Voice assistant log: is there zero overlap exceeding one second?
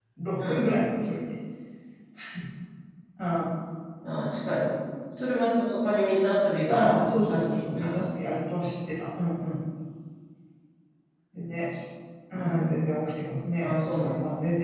No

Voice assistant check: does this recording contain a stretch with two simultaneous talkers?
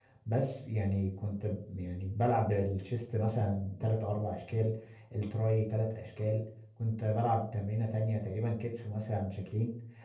No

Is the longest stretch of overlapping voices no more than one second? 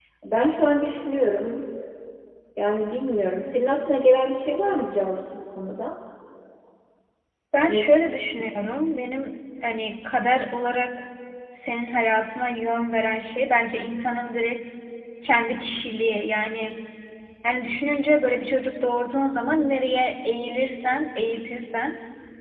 Yes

